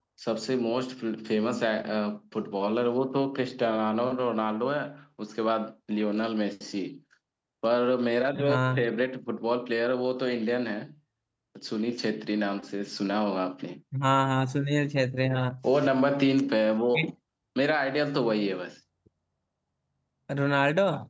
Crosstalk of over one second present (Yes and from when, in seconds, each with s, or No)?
No